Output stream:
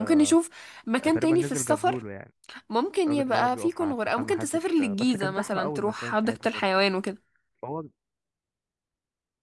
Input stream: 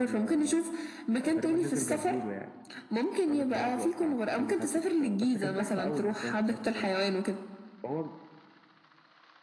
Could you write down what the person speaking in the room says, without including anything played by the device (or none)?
none